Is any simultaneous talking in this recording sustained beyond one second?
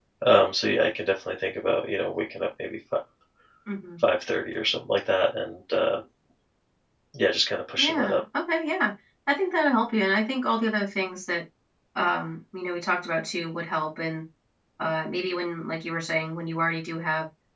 No

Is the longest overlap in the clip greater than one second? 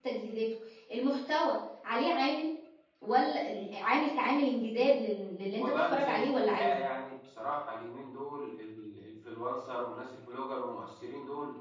Yes, from 5.6 s

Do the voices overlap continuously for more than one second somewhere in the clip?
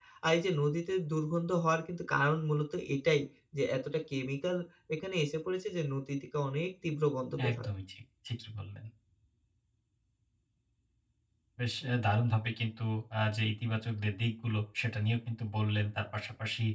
No

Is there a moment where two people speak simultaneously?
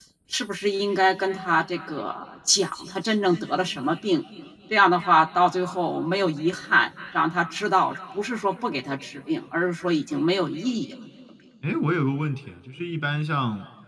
No

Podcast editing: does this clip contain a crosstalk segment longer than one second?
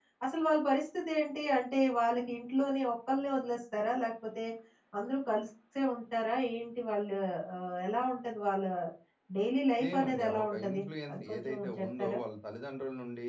Yes, from 9.8 s

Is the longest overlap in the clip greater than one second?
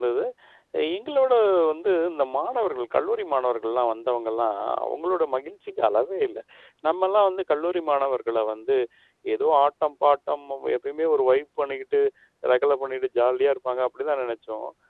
No

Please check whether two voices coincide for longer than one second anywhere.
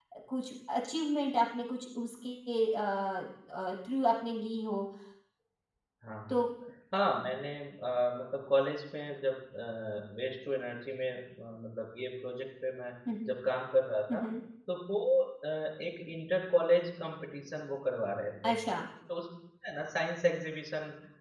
No

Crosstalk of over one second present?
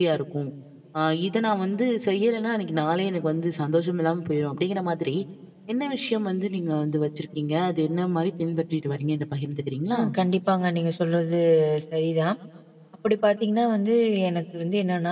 No

